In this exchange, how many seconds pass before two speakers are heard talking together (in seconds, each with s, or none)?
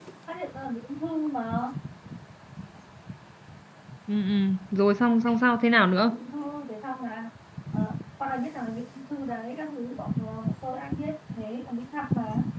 none